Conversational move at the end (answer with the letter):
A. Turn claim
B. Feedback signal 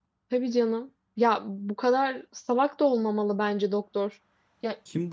A